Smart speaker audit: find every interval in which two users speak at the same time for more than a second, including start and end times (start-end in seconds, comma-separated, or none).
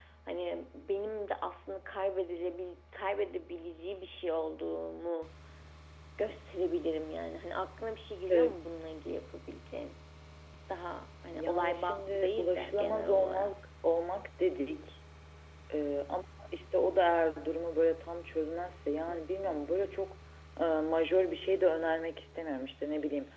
11.3-13.5